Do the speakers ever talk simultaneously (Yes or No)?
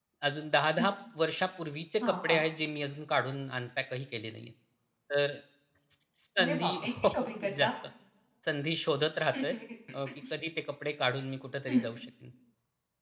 Yes